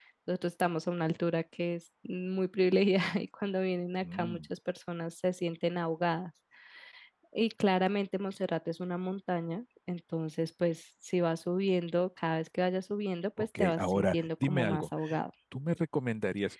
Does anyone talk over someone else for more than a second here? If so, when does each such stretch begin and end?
13.4-14.9

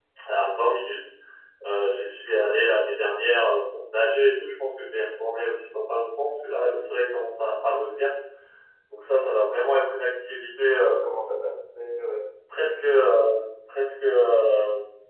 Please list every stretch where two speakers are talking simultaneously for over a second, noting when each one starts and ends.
none

